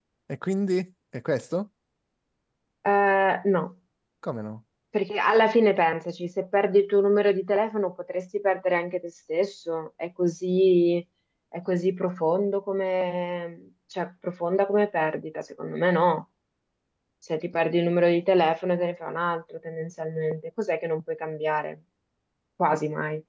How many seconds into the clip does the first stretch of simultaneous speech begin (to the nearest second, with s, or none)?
none